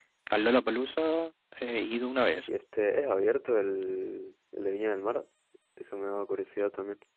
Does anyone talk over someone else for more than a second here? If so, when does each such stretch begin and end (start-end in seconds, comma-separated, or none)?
none